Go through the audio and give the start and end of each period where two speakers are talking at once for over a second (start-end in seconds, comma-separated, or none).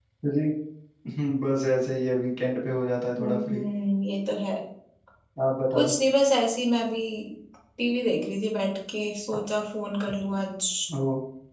none